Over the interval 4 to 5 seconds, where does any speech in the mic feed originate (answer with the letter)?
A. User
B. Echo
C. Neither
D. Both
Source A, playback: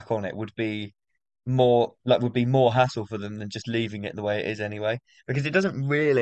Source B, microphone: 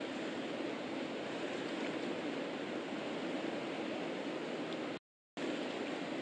C